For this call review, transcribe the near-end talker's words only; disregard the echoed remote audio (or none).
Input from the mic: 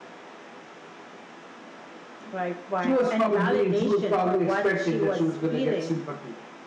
none